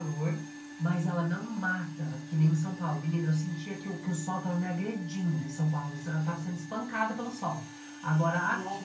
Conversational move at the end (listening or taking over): listening